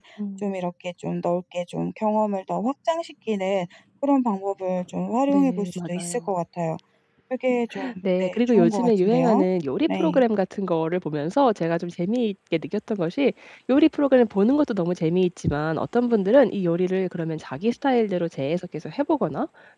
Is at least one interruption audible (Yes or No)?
Yes